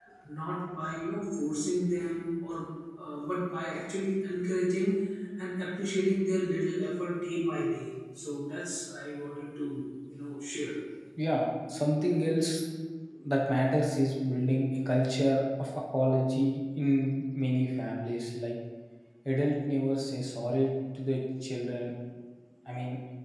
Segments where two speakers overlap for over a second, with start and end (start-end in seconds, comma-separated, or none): none